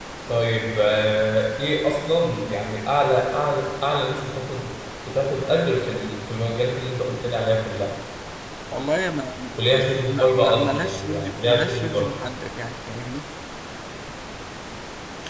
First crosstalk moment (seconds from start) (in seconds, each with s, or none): 10.1 s